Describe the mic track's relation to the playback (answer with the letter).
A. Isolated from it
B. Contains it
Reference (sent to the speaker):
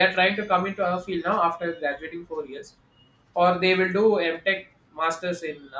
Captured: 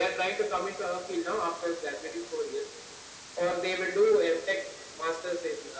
B